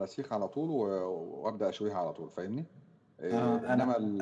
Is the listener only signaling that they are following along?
No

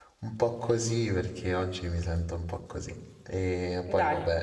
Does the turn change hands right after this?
No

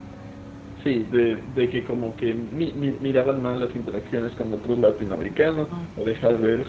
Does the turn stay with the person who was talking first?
Yes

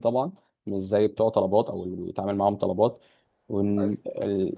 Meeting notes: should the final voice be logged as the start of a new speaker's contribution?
No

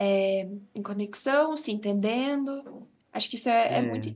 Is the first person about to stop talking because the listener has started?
No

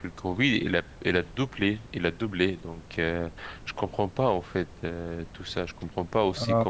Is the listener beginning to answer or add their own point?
No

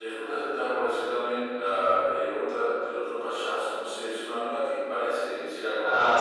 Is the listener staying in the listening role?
No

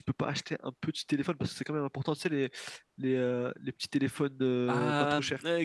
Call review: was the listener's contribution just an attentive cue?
No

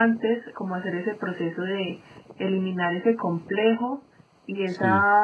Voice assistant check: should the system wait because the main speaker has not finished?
Yes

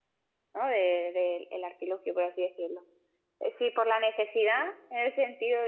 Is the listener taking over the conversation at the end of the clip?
No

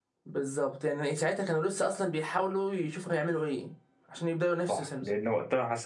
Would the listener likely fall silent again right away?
No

